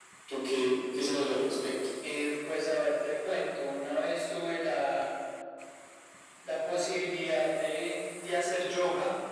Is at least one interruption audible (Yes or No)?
No